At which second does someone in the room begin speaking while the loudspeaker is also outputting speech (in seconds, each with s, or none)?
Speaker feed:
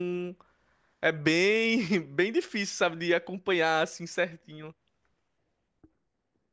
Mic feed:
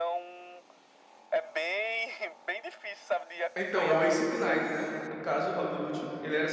3.5 s